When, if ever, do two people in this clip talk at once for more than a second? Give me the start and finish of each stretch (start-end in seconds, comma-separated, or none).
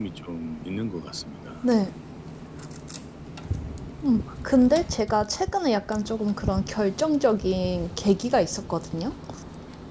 none